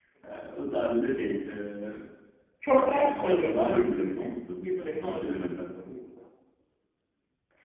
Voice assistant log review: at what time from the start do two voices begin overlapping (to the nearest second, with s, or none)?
3 s